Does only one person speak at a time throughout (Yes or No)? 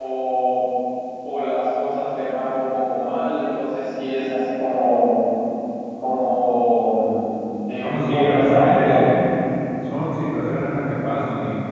No